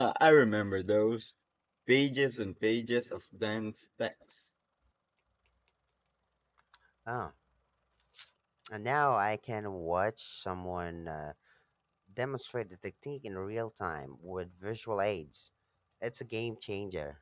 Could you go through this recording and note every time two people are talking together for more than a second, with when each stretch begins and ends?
none

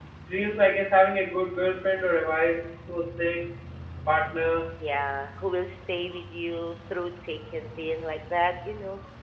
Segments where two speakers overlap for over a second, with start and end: none

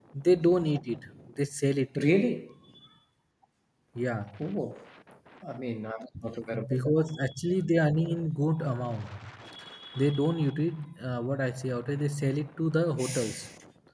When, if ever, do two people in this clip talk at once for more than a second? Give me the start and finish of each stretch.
none

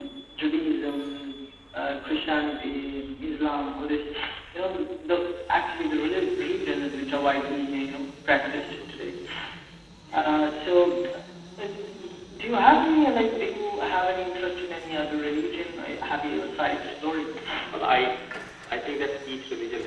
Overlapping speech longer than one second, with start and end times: none

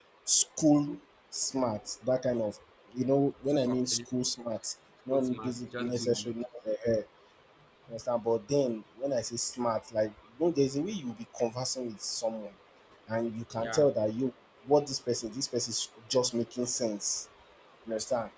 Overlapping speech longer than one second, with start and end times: 5.1-6.3

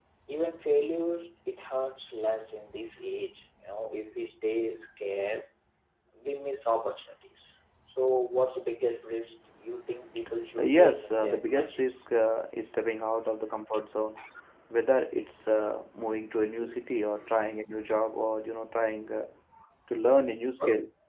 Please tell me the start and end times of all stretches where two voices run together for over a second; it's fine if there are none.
10.6-12.0

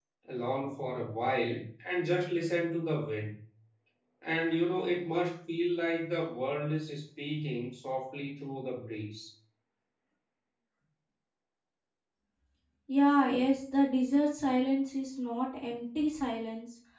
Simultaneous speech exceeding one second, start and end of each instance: none

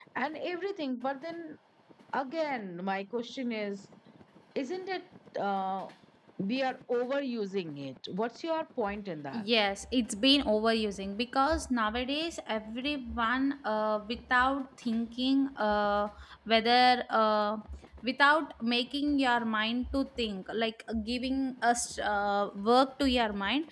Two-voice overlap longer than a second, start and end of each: none

